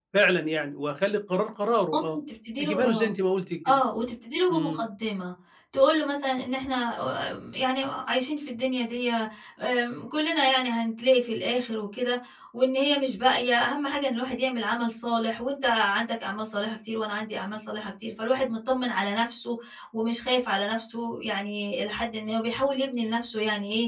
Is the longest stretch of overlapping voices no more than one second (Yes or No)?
Yes